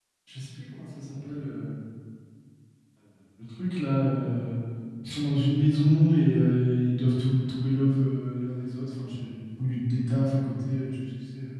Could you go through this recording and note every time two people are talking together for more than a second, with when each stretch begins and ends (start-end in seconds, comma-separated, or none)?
none